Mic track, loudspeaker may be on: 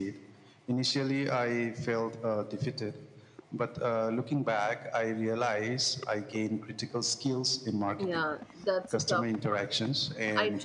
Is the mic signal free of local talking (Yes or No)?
No